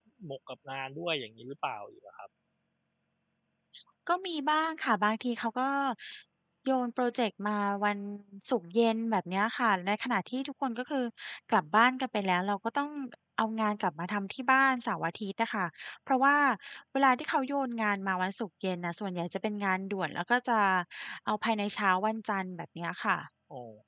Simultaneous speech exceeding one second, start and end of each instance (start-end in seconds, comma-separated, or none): none